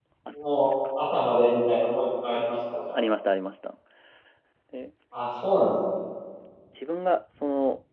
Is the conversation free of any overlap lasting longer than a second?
Yes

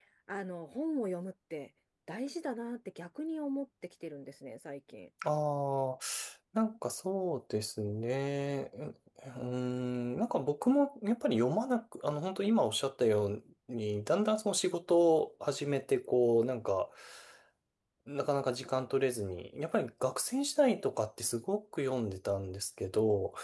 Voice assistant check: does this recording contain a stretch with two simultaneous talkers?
No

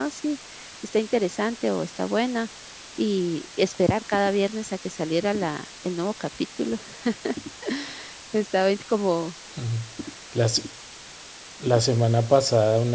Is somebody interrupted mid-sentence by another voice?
No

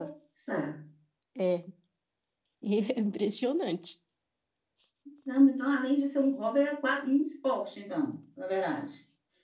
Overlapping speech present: No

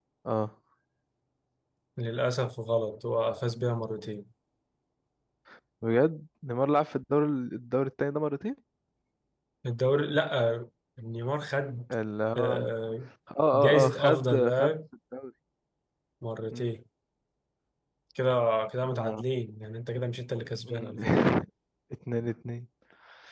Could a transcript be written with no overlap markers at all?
No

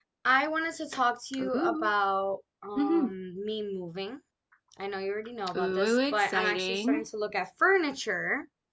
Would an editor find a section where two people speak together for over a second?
Yes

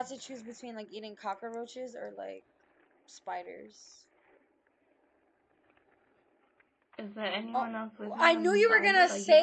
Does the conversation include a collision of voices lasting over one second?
Yes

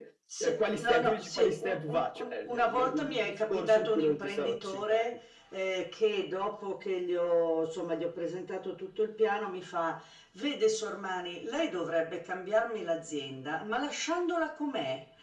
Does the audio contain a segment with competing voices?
Yes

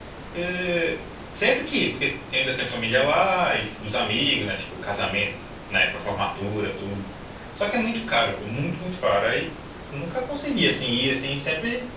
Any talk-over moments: No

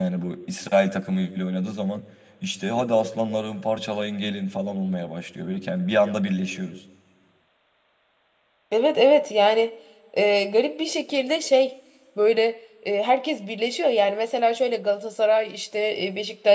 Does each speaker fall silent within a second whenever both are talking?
Yes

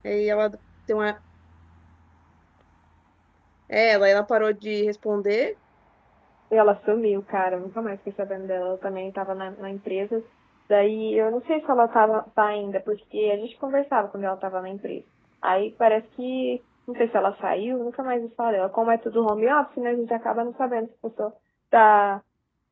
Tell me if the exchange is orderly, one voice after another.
Yes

